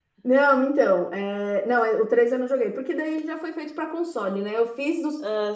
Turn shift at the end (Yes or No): No